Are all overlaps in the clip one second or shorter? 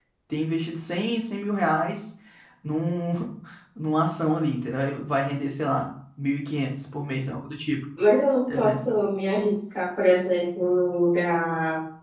Yes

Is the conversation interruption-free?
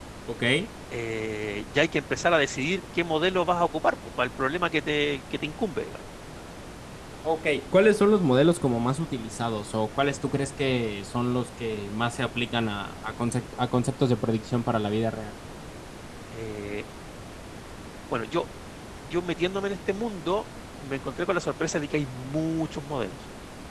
Yes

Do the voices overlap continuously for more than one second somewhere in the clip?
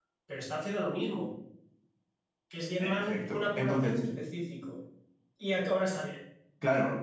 Yes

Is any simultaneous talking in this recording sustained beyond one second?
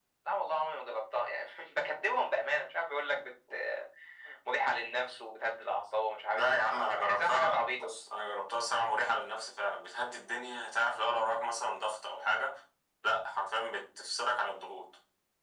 Yes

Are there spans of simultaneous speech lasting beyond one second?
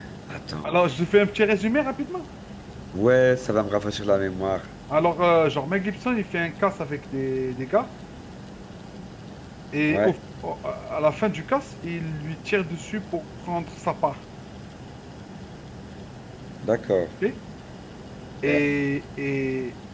No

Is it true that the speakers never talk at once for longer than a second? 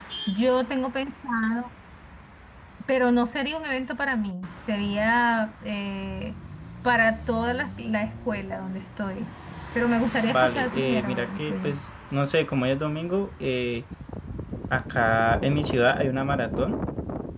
No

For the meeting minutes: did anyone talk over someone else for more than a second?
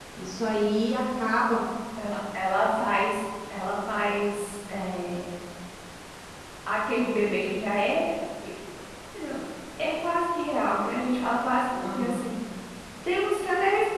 No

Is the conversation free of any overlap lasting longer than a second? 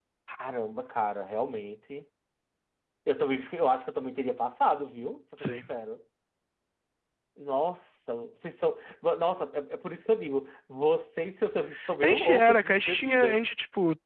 No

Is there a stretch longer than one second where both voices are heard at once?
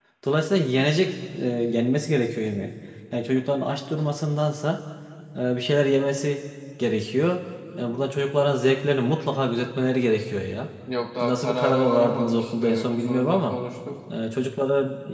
Yes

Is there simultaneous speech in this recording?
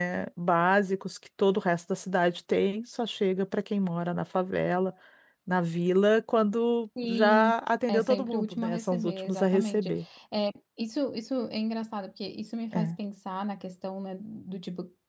Yes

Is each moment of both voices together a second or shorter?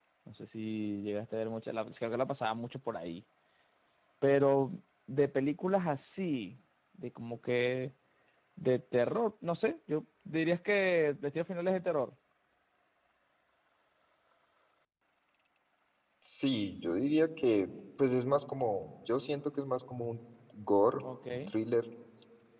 Yes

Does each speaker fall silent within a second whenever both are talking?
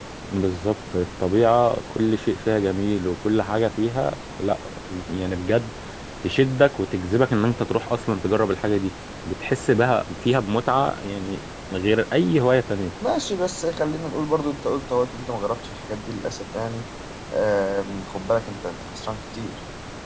Yes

